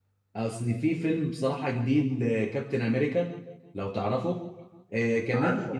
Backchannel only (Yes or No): Yes